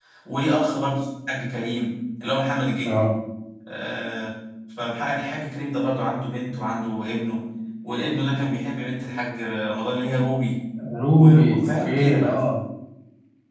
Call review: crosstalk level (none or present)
present